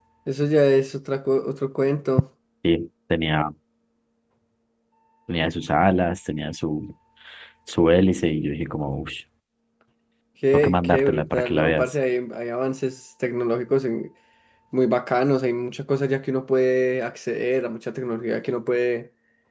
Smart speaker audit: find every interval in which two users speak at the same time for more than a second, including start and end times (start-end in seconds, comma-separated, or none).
10.5-11.8